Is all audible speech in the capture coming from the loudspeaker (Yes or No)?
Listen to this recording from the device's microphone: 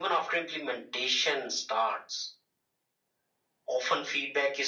Yes